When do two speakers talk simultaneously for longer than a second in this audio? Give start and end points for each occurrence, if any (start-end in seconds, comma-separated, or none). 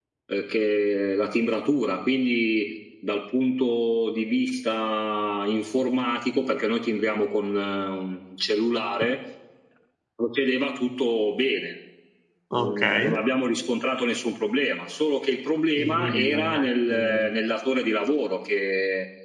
15.8-17.3